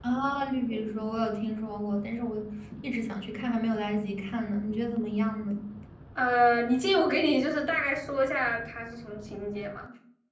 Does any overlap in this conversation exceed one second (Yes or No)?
No